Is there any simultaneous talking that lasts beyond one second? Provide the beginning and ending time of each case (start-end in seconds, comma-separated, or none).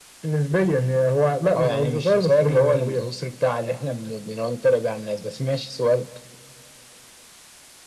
1.6-3.1